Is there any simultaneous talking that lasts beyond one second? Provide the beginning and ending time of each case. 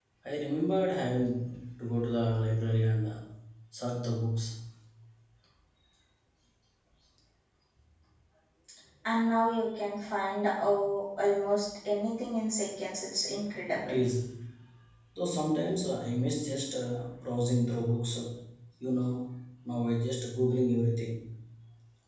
none

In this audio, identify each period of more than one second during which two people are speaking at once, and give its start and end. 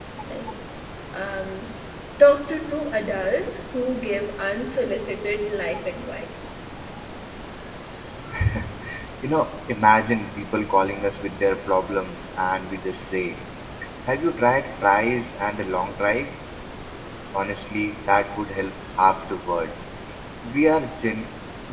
none

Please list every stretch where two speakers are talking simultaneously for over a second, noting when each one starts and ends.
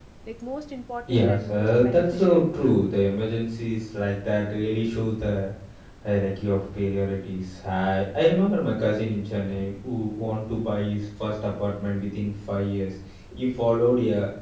1.1-2.7

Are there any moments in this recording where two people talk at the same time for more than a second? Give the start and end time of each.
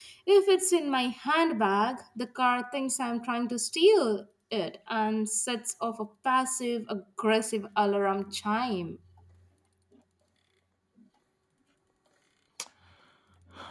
none

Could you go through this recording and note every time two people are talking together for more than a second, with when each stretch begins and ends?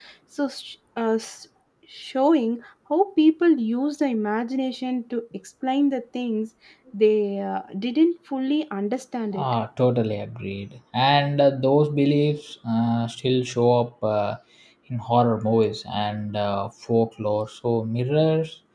none

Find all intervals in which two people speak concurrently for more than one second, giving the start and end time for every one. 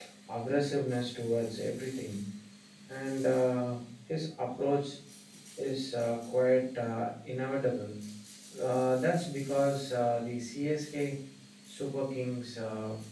none

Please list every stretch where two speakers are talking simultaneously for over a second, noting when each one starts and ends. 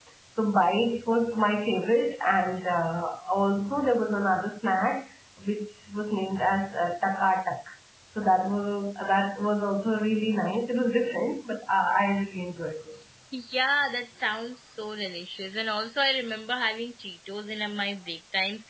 none

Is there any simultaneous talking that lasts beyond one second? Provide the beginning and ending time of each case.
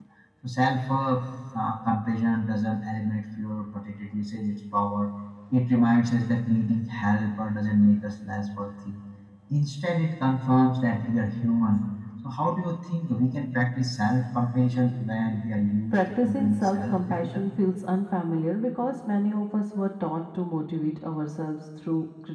15.9-17.4

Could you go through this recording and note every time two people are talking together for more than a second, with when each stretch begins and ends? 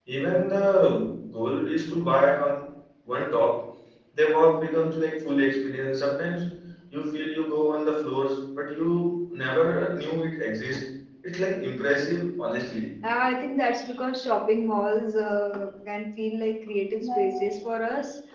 none

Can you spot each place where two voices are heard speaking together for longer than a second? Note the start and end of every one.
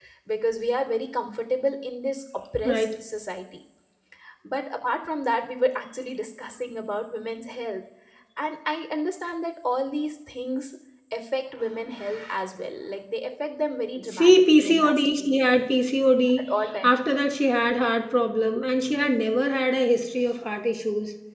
14.0-15.4

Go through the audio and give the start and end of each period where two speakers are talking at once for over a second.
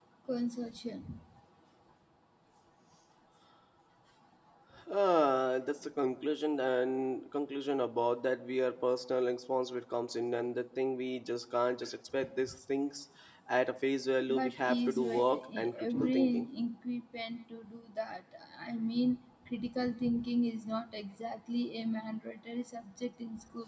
14.3-16.5

